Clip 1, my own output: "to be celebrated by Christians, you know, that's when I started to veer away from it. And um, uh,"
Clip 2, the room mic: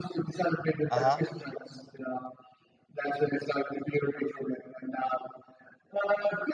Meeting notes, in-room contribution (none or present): present